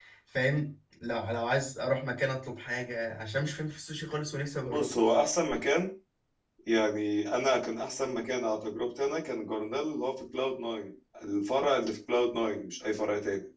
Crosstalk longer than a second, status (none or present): none